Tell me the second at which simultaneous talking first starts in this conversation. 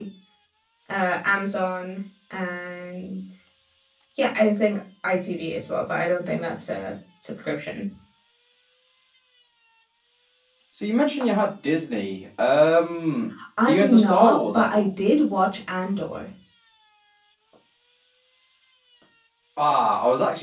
13.7 s

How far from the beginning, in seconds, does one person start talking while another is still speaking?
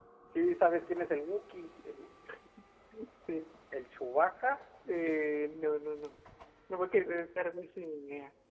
none

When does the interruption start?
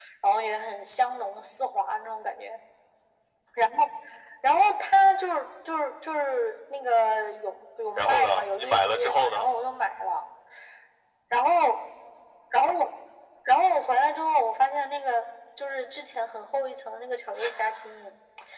8.0 s

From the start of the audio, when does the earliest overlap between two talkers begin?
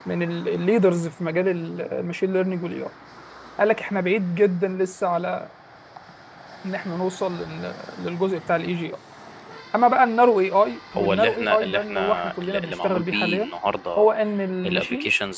10.9 s

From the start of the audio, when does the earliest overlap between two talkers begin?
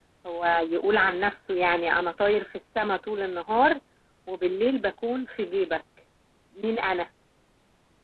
none

